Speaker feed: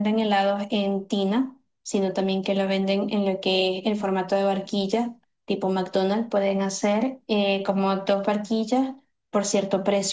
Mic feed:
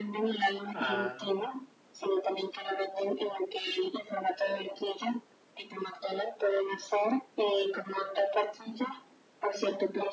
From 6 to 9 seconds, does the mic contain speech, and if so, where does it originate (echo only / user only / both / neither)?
echo only